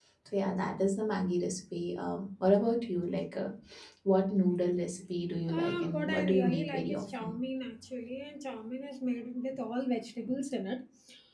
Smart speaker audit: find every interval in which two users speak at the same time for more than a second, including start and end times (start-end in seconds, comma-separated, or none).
5.5-7.3